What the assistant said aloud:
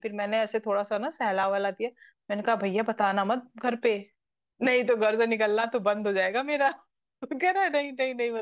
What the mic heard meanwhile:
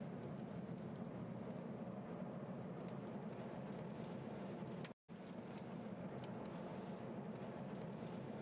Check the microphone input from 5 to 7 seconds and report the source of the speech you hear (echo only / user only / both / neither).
neither